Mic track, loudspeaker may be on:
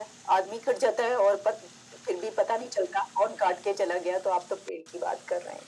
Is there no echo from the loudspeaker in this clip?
No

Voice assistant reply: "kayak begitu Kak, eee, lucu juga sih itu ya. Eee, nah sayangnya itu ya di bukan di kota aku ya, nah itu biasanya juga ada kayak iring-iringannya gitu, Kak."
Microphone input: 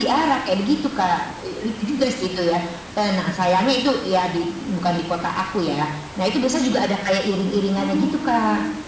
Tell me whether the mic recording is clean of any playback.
No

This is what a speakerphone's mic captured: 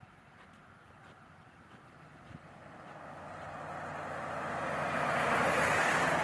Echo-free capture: Yes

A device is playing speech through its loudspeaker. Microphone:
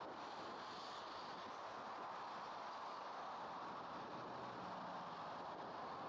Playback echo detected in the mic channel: No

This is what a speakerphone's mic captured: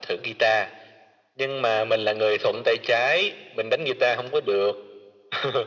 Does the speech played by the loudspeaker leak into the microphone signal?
Yes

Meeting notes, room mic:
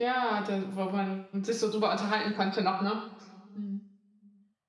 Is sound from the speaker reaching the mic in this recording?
No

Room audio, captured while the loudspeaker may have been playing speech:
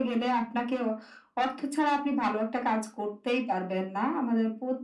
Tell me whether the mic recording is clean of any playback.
No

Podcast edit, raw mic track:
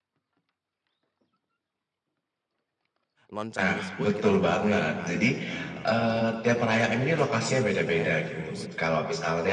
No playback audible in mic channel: No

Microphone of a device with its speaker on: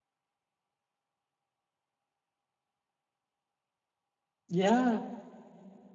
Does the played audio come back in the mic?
No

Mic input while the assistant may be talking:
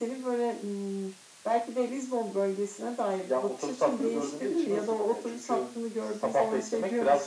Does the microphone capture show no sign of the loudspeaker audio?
No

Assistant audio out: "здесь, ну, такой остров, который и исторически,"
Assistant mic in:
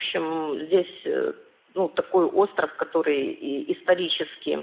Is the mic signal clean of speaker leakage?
No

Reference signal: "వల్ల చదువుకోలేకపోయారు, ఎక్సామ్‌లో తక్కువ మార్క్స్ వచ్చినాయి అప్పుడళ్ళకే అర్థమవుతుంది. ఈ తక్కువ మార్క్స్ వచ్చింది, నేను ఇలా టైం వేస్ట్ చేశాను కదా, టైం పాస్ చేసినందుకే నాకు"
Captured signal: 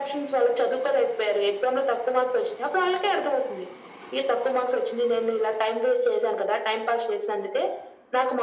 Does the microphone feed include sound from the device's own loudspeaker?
Yes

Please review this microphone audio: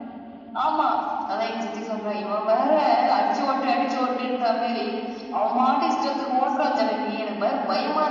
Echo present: Yes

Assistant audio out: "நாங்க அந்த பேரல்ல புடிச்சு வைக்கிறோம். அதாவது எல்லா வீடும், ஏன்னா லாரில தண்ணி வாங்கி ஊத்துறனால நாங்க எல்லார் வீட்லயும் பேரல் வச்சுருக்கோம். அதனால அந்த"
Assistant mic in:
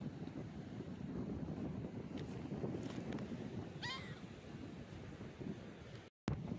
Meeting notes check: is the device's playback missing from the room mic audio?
Yes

